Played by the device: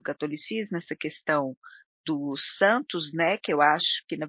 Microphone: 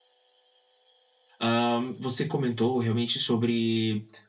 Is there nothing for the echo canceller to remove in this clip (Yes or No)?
Yes